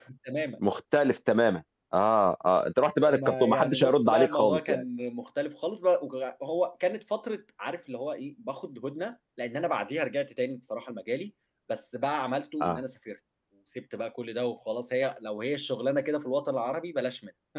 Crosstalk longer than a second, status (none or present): present